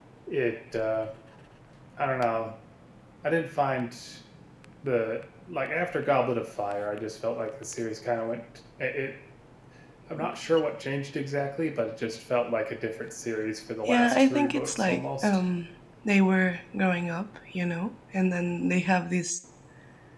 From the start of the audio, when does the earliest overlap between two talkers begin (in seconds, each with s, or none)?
13.9 s